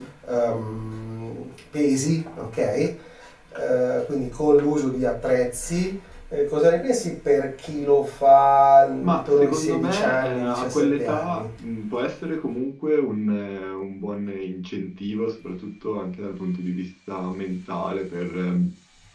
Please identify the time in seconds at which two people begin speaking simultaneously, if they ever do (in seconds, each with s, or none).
9.0 s